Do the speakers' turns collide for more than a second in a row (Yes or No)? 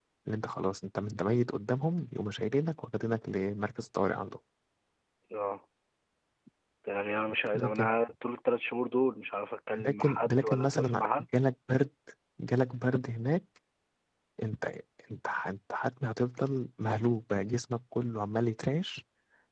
Yes